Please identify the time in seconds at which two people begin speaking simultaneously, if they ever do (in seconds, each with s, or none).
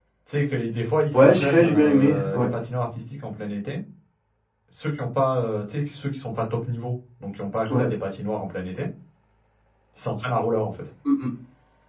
1.1 s